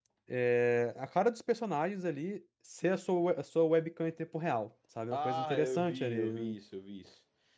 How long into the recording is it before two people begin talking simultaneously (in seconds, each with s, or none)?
5.1 s